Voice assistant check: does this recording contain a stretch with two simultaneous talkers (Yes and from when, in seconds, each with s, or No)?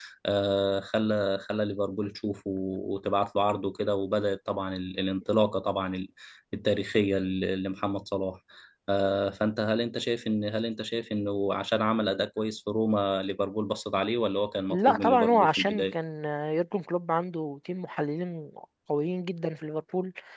Yes, from 14.7 s